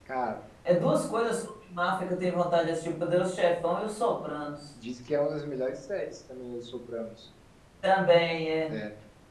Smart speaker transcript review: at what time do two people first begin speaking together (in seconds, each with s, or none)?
none